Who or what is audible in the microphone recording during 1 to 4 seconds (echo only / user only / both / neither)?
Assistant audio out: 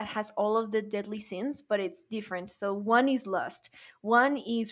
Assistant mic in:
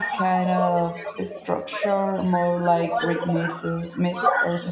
both